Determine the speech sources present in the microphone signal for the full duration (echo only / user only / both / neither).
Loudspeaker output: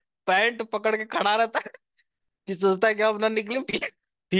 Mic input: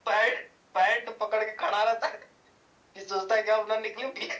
echo only